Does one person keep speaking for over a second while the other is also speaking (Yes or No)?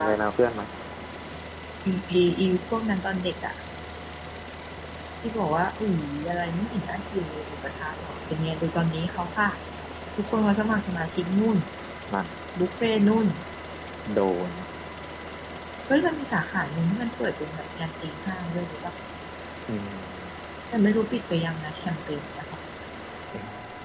No